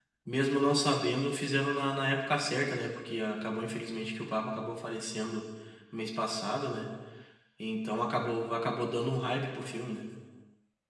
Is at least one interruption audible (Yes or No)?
No